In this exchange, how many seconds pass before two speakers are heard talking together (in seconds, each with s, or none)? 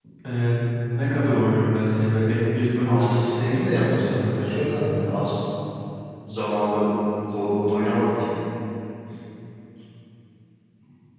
2.8 s